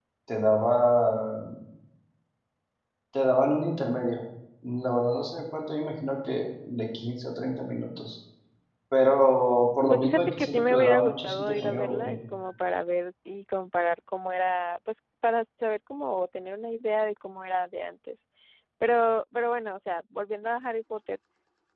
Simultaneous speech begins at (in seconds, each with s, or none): 9.9 s